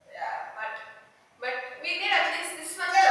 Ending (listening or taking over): taking over